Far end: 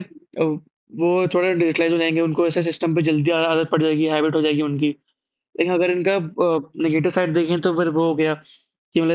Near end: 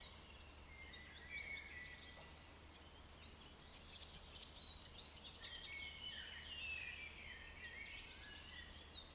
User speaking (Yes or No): No